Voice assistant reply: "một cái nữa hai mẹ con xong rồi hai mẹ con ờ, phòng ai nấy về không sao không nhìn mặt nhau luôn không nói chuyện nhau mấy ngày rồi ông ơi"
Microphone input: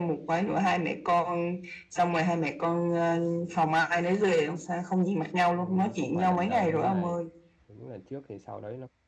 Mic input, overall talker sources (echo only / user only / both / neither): both